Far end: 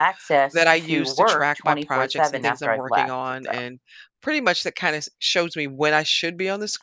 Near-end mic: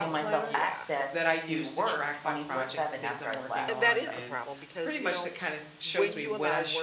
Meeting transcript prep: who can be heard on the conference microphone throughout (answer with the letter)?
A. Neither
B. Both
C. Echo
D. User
B